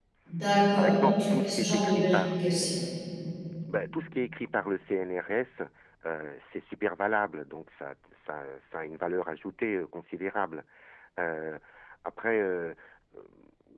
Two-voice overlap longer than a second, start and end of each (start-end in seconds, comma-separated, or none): 0.8-2.4